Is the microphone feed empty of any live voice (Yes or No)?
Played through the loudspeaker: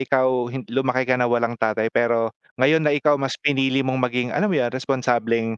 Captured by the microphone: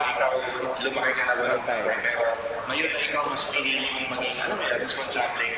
No